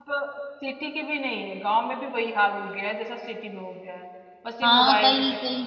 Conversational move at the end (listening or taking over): taking over